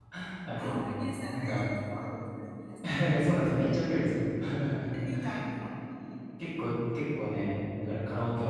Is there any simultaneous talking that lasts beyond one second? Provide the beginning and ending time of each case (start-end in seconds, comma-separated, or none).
none